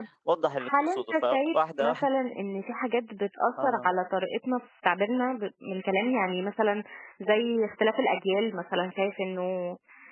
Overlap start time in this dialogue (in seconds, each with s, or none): 0.7 s